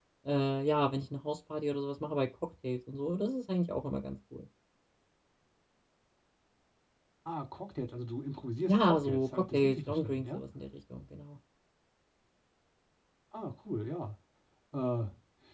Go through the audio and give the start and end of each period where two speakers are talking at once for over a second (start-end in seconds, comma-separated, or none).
8.7-10.4